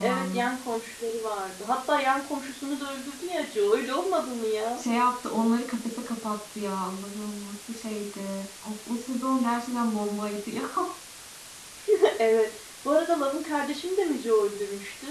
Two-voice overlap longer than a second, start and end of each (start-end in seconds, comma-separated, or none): none